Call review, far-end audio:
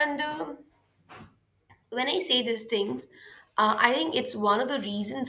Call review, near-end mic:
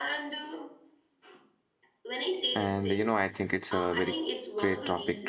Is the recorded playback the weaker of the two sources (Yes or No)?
Yes